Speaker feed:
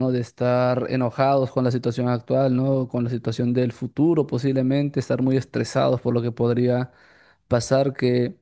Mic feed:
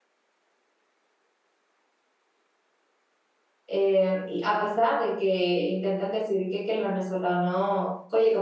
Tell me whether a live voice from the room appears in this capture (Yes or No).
Yes